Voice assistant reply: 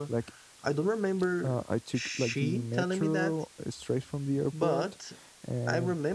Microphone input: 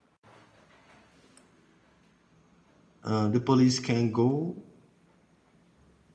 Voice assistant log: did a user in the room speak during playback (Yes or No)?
Yes